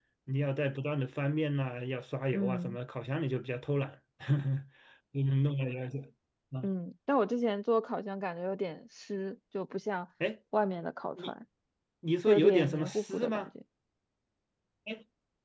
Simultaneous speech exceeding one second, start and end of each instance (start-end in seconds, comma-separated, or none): 12.3-13.5